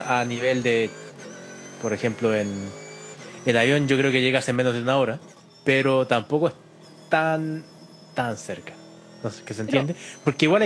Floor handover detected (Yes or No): No